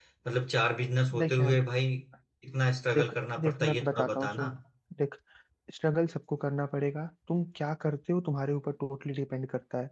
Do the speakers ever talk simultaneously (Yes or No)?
Yes